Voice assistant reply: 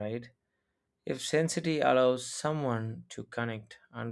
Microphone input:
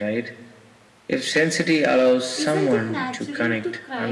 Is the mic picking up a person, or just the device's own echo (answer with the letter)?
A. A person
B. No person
A